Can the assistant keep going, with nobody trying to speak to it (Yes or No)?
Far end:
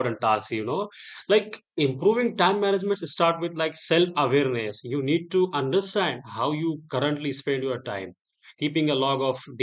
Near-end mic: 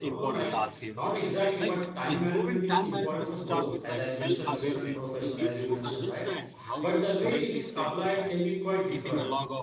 No